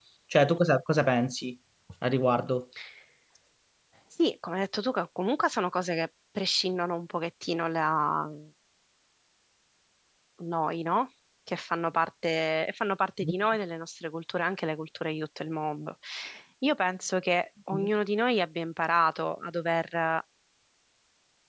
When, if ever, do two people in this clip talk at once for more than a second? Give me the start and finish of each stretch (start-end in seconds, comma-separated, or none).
none